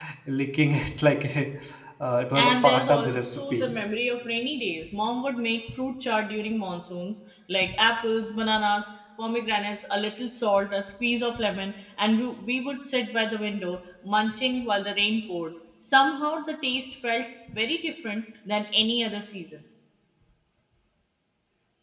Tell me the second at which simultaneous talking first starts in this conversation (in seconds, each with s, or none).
2.4 s